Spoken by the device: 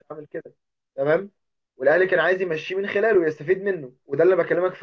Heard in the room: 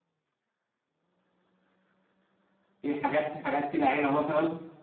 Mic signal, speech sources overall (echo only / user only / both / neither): user only